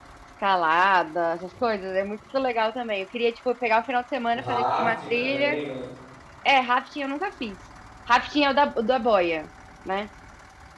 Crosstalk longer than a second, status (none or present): present